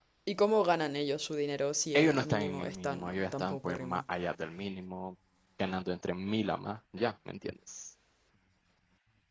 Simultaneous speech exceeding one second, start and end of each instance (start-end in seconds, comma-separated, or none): 1.9-4.0